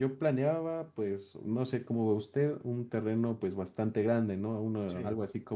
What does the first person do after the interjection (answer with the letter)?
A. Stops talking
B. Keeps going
B